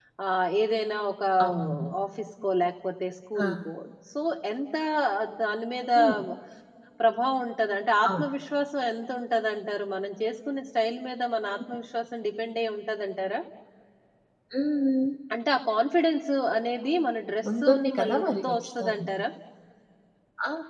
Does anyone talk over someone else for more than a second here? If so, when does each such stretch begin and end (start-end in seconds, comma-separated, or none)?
17.6-19.1